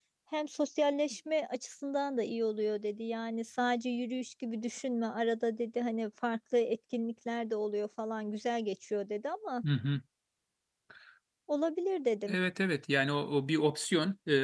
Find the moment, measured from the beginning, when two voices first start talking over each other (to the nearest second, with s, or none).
none